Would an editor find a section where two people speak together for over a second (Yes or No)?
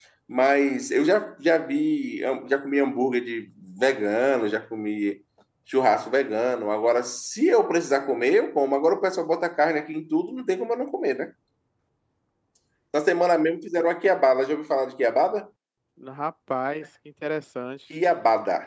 No